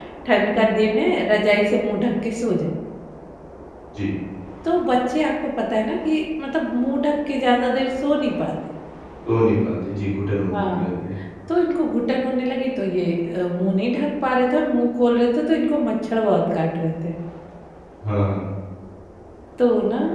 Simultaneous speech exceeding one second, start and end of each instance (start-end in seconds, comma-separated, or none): none